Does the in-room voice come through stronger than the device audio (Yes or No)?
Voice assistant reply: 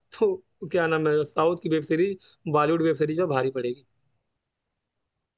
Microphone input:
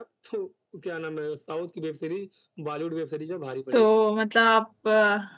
Yes